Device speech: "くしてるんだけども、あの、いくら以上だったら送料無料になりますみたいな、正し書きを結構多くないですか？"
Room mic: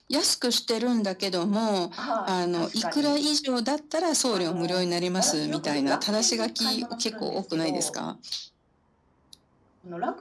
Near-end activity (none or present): present